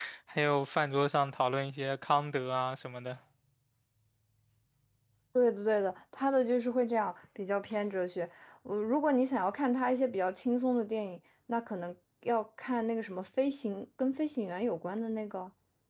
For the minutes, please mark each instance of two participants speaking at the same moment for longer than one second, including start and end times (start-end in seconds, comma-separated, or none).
none